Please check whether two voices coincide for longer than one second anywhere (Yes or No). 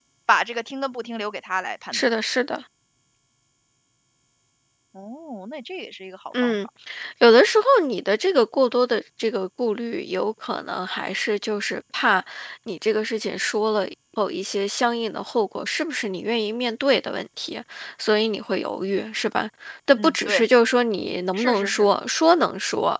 No